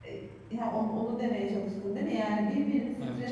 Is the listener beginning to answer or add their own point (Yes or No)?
No